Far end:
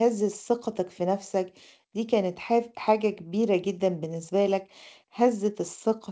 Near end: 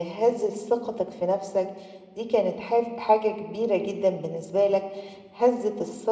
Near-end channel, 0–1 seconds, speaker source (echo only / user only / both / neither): echo only